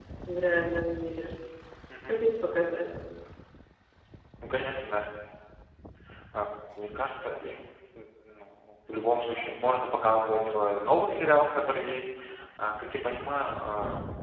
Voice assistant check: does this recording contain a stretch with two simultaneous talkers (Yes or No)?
No